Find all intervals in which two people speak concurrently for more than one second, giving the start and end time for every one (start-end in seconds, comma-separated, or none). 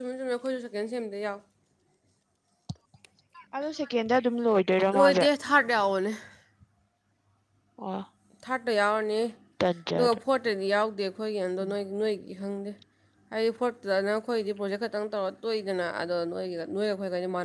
none